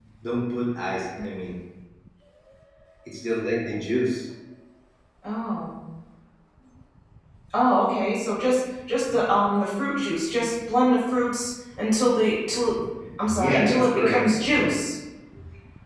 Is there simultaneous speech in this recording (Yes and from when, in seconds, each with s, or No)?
Yes, from 13.2 s